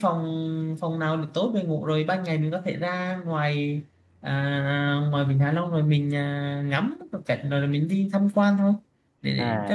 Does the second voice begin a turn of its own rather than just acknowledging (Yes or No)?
Yes